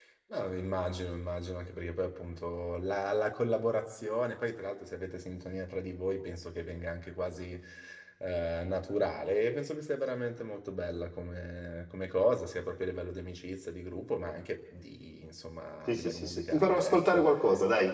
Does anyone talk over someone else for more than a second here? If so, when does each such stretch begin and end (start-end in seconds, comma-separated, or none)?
15.9-17.2